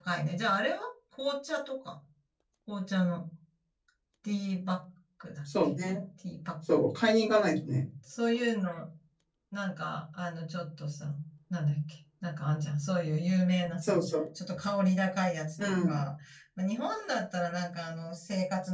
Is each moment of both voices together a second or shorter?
Yes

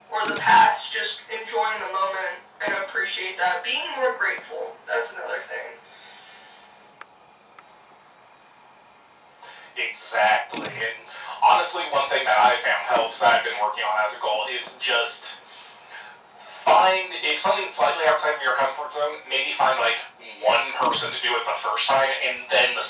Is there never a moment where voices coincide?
Yes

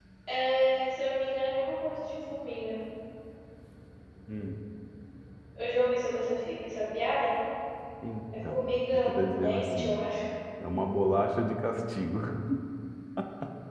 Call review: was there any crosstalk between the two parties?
Yes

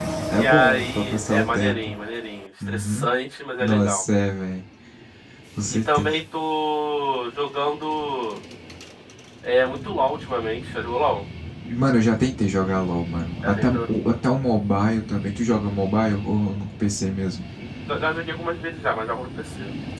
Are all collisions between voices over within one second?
No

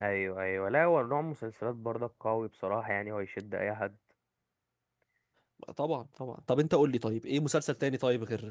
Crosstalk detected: No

